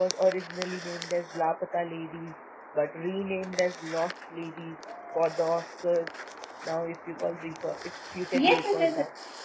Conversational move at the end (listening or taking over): taking over